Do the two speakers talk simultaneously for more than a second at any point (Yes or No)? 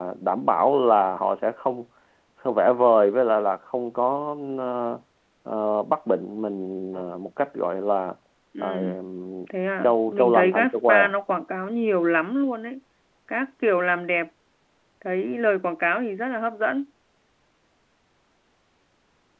Yes